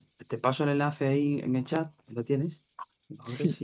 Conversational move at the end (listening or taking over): listening